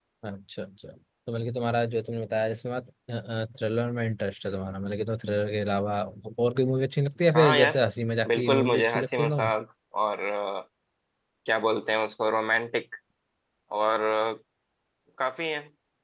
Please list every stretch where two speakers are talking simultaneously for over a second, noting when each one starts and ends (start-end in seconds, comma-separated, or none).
8.3-9.5